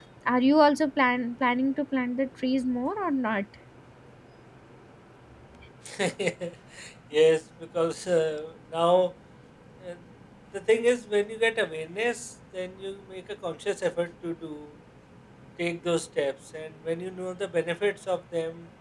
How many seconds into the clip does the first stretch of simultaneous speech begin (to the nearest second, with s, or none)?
none